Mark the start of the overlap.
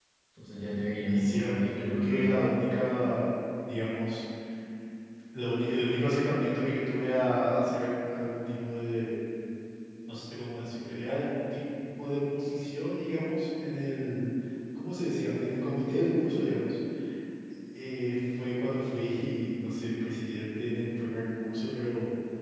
1.1 s

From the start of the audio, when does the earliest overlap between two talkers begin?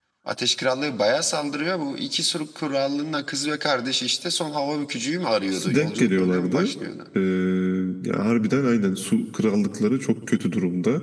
5.5 s

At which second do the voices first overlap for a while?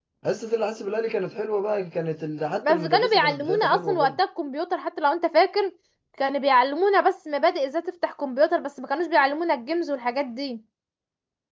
2.6 s

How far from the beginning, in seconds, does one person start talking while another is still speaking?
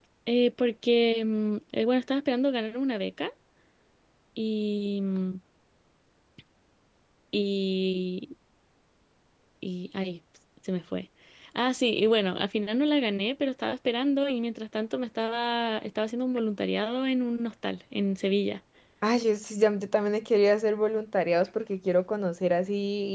none

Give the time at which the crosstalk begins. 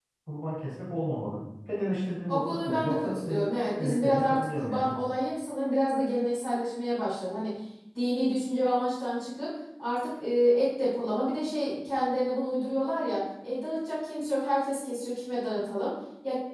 2.3 s

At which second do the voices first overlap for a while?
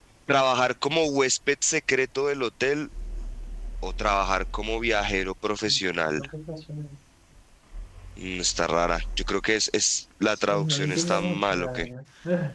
10.3 s

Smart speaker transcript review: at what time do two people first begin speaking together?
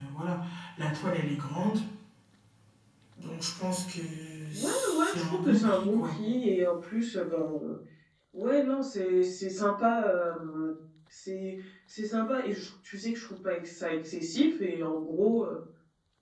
4.5 s

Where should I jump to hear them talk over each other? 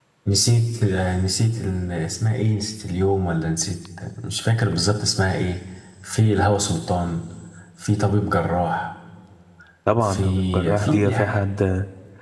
10.0 s

